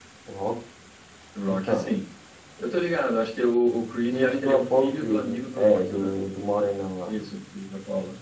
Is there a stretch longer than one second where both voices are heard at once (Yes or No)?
Yes